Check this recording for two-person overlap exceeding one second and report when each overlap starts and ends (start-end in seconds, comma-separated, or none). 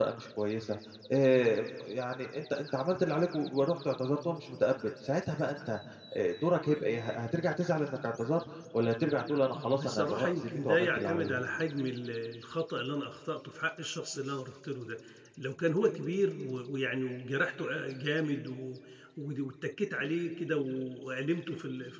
9.5-11.4